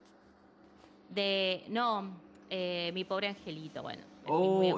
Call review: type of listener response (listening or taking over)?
taking over